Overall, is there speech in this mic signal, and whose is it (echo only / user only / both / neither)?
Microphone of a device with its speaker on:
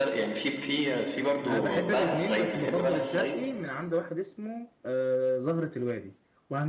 both